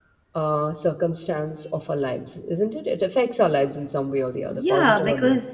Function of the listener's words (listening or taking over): taking over